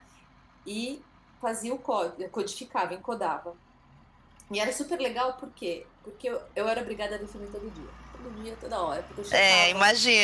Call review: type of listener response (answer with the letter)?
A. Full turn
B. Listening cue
A